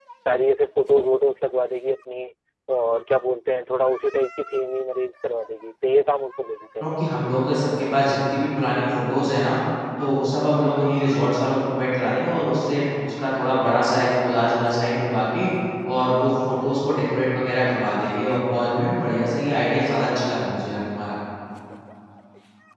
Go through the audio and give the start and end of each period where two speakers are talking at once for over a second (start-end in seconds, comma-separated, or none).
none